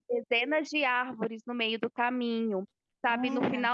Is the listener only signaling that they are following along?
Yes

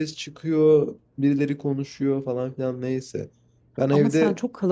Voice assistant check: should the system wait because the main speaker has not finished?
No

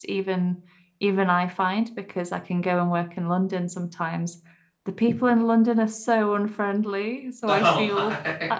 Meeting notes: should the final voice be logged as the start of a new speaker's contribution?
No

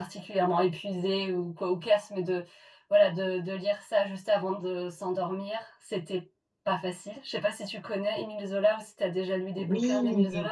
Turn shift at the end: Yes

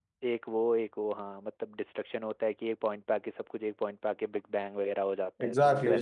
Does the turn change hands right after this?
Yes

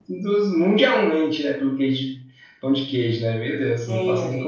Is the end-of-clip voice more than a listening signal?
Yes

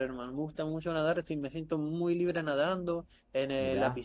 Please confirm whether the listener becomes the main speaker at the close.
No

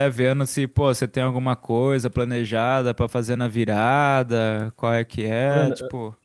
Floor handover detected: Yes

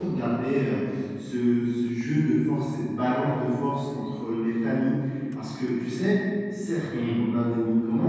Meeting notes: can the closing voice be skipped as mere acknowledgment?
Yes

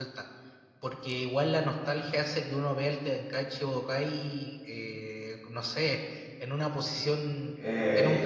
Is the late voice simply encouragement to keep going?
No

